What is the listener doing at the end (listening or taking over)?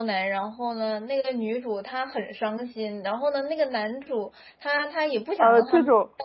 taking over